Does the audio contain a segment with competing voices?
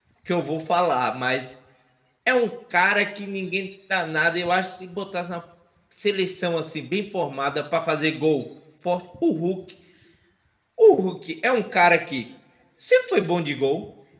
No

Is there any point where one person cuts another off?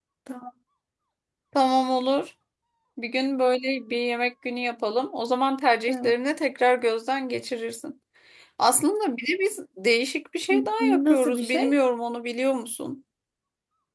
Yes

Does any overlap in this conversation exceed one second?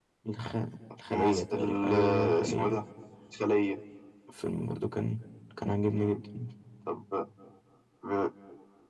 Yes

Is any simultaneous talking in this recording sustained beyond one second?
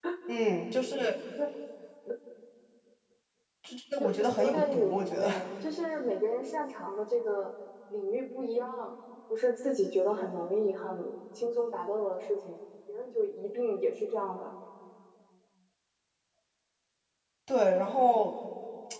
Yes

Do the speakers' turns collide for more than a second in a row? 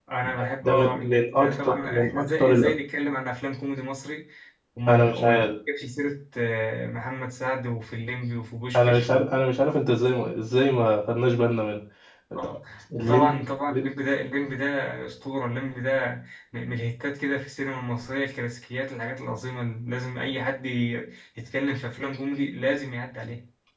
Yes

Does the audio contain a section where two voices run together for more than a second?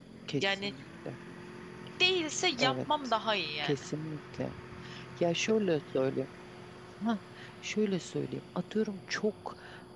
No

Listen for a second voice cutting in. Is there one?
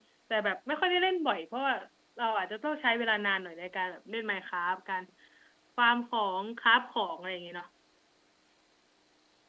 No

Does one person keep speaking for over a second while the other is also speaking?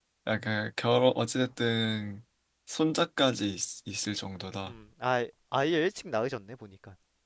No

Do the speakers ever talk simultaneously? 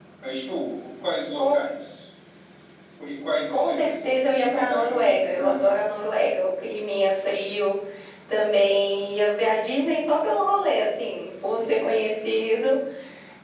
Yes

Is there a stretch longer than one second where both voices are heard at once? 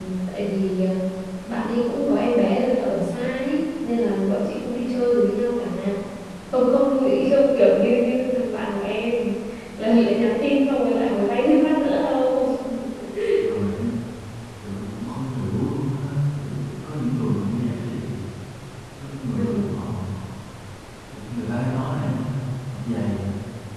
No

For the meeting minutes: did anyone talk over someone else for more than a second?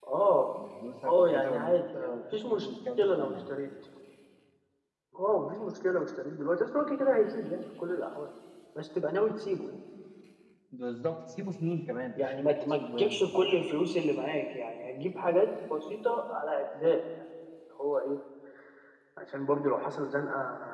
Yes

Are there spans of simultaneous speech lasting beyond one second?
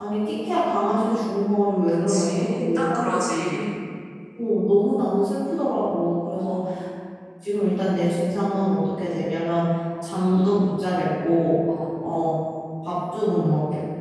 Yes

